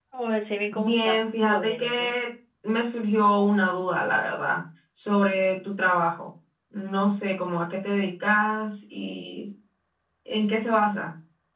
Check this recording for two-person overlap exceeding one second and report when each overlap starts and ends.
0.7-2.1

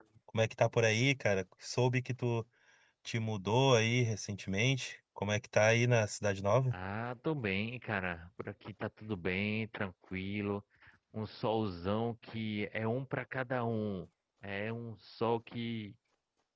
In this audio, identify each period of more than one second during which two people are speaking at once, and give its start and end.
none

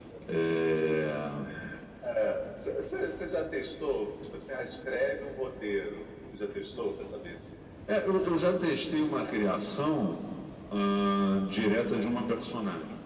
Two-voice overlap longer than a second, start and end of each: none

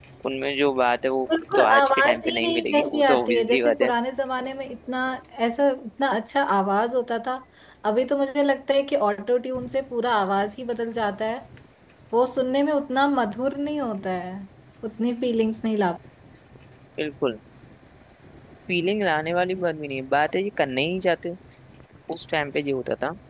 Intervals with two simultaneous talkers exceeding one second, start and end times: 1.5-3.9

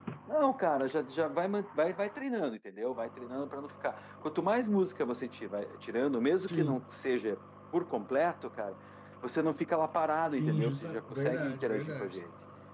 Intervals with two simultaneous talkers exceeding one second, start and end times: 10.4-12.2

